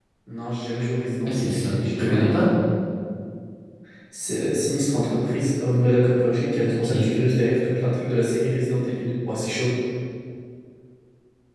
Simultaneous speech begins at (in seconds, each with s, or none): 1.2 s